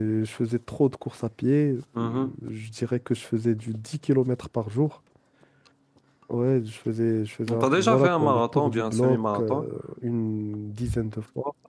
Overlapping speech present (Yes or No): Yes